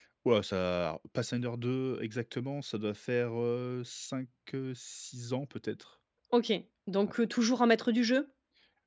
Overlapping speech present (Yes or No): No